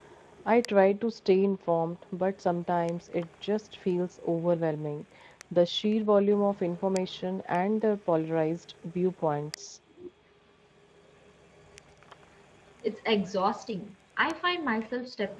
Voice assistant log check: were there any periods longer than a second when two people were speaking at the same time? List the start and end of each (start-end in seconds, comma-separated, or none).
none